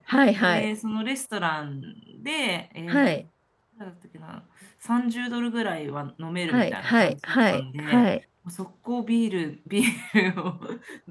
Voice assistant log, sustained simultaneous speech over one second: present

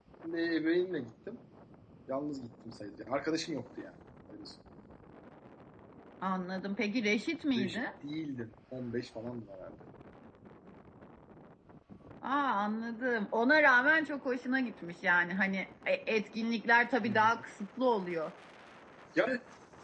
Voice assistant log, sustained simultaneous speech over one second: none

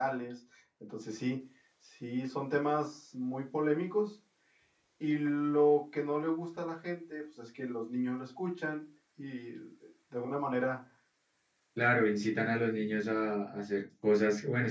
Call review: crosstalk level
none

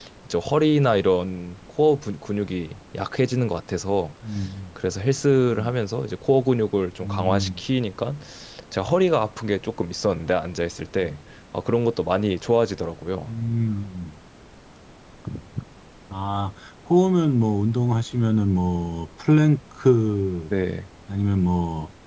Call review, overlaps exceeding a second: none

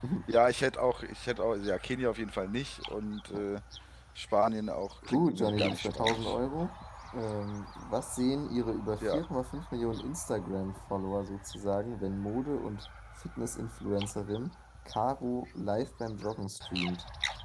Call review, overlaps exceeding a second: present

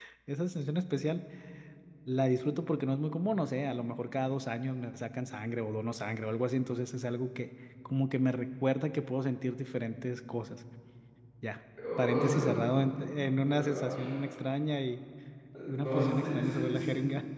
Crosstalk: present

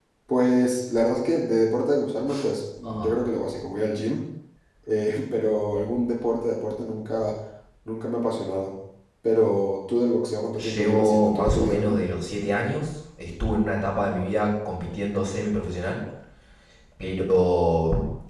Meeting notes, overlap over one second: present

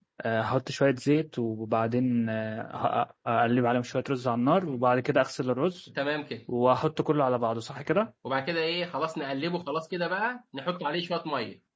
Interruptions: none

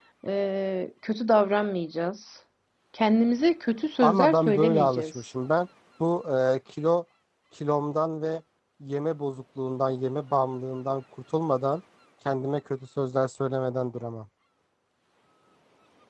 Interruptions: present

